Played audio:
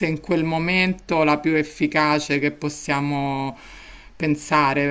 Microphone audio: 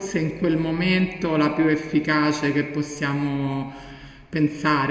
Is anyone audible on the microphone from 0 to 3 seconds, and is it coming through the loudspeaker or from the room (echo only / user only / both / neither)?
echo only